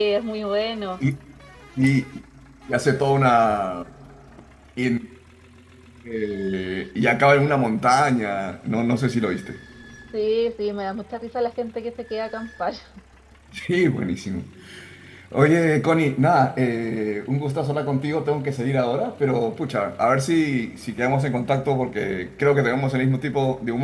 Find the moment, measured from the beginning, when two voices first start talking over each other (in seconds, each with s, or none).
none